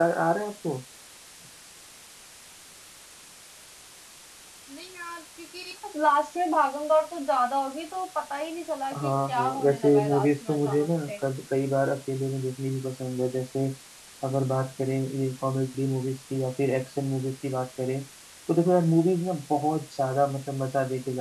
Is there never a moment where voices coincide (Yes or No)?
No